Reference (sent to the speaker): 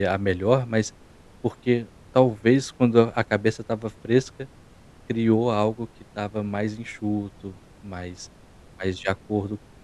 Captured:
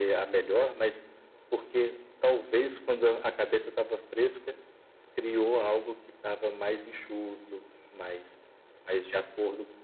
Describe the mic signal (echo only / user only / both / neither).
echo only